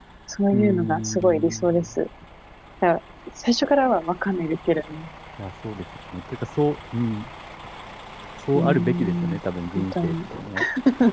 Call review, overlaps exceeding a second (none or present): present